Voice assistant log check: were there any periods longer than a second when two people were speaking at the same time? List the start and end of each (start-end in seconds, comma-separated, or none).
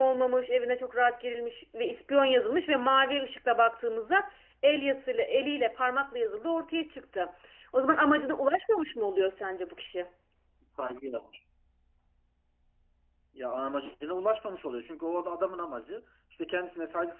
none